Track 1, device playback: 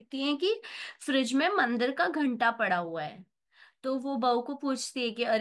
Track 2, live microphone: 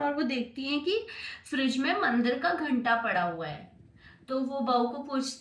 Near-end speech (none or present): none